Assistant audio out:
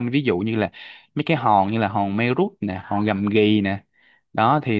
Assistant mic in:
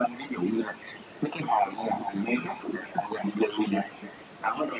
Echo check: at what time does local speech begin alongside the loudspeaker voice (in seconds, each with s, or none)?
none